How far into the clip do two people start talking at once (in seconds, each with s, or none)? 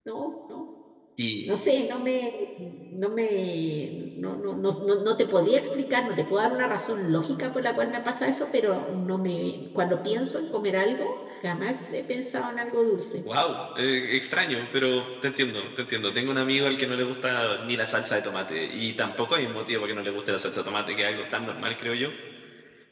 none